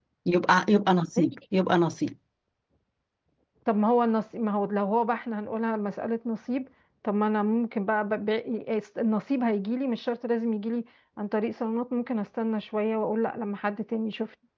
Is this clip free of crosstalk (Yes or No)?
Yes